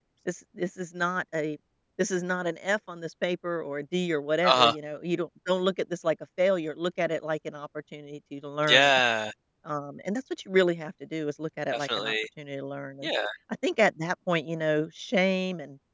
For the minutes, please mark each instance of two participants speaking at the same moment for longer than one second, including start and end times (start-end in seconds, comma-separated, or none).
none